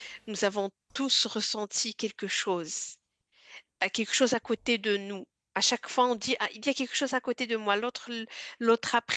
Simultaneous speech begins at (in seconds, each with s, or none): none